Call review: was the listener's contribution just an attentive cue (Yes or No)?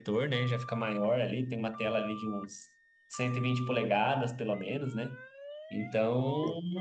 Yes